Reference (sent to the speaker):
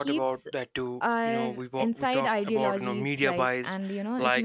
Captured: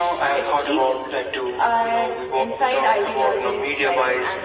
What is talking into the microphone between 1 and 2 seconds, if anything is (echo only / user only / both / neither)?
echo only